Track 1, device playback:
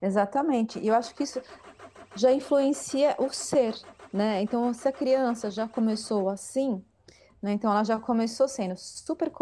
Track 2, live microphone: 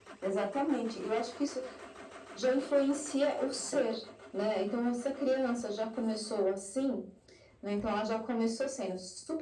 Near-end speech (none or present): none